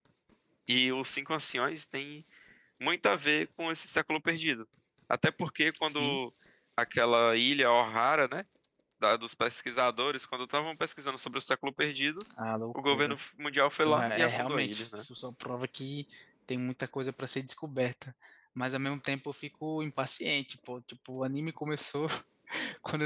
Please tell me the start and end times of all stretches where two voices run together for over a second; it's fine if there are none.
13.8-15.0

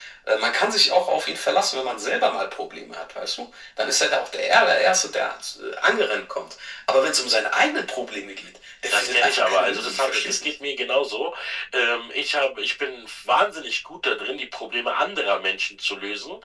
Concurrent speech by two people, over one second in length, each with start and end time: 8.9-10.5

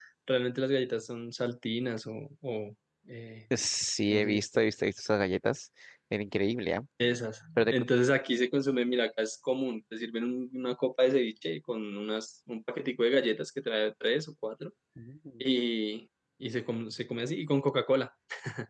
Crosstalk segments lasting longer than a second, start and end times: none

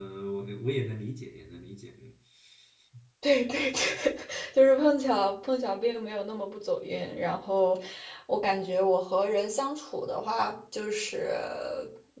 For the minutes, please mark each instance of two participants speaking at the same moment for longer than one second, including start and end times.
none

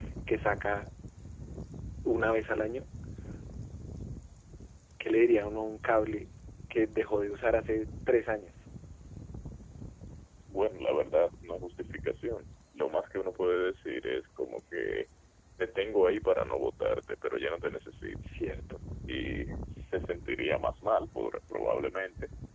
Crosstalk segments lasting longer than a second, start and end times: none

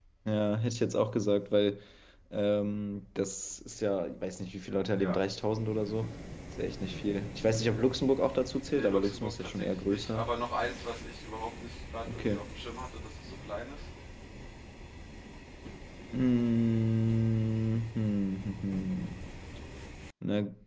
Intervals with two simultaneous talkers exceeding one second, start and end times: 8.7-10.3

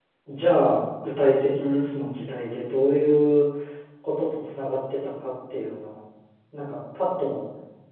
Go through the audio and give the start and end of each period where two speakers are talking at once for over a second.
none

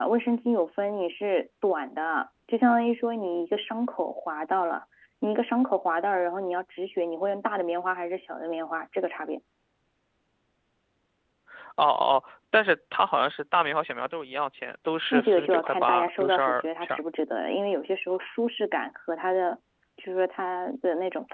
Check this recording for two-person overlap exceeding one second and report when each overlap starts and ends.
15.1-17.0

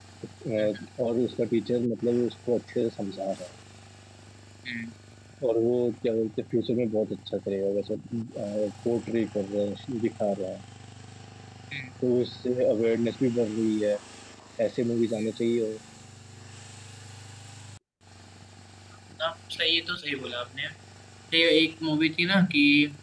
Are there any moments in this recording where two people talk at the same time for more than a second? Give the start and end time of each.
none

